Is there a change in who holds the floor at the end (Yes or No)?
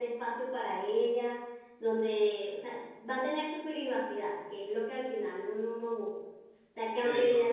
No